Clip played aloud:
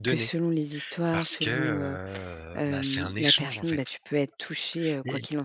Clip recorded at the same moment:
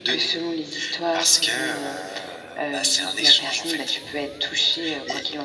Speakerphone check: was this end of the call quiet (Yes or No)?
Yes